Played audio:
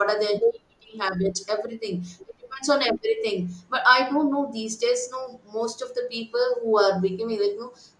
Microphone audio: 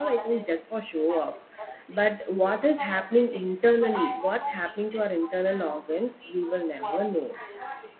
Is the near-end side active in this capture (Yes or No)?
Yes